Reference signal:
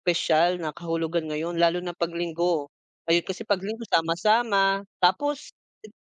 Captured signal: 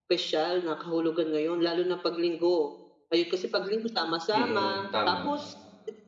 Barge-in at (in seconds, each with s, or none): 4.3 s